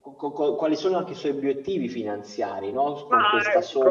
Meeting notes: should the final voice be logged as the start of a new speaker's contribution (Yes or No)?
Yes